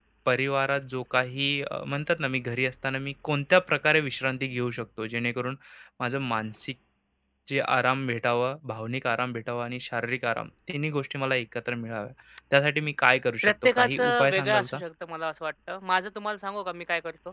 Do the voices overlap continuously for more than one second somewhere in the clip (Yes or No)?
Yes